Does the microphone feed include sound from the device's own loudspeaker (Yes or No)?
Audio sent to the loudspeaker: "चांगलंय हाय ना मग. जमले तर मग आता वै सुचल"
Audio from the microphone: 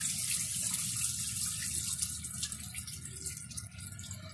No